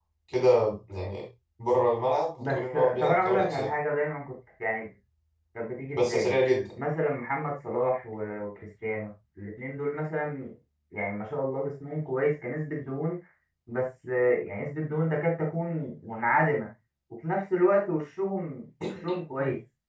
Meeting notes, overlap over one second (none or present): present